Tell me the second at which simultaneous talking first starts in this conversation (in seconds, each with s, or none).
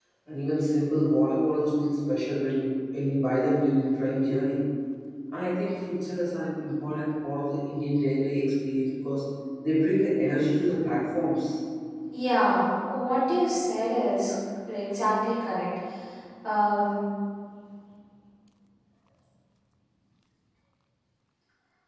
none